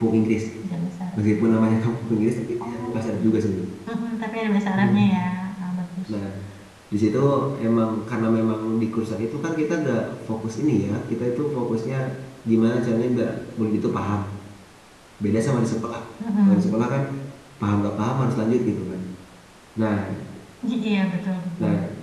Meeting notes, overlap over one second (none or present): none